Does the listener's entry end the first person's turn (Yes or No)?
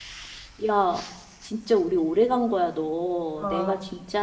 No